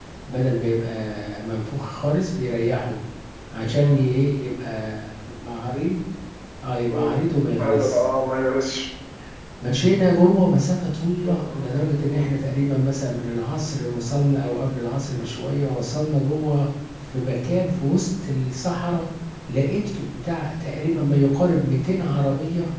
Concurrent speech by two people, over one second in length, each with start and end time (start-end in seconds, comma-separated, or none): none